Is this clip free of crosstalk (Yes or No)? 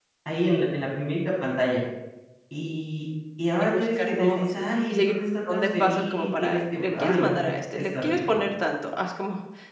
No